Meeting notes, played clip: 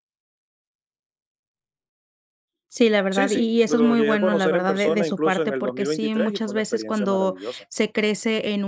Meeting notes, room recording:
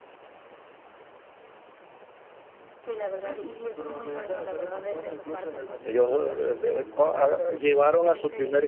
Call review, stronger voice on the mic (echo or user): user